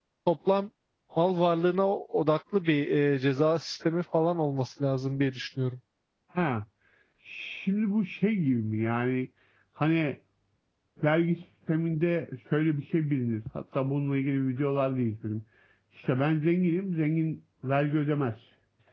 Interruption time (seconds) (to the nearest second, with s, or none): none